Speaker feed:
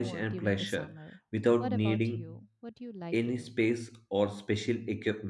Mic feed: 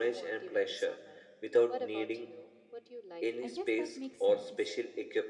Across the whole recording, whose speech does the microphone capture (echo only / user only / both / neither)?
both